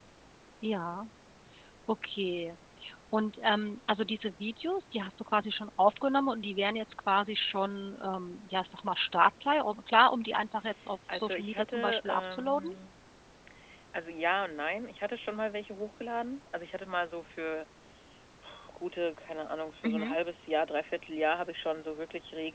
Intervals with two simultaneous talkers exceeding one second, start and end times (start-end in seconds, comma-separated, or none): 11.1-12.7